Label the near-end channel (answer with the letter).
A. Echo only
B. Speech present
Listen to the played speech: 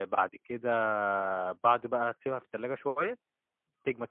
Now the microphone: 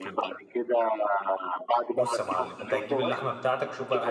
B